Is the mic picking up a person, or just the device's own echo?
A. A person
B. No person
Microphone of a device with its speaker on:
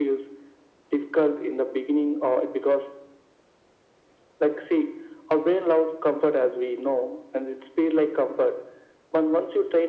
B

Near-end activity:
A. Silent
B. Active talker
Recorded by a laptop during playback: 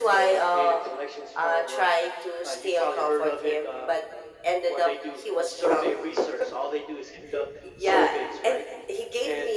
A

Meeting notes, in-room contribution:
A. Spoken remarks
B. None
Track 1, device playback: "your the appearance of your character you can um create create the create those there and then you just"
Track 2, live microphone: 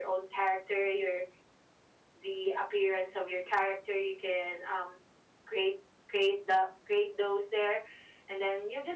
B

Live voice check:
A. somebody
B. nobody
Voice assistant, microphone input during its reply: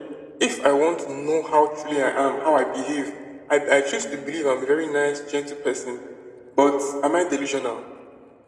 B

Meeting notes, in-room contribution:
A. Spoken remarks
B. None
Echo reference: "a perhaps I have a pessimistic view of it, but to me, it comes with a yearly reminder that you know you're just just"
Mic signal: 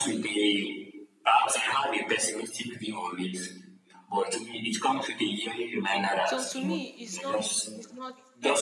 A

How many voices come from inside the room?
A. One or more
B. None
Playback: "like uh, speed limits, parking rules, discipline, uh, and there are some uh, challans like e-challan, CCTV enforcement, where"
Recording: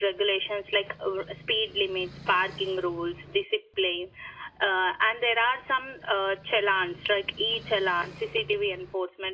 B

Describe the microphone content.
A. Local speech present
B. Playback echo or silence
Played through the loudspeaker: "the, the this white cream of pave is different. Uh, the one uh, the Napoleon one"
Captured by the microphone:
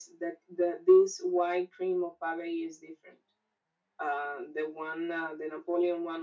B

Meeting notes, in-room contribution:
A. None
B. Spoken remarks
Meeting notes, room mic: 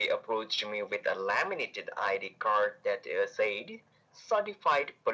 A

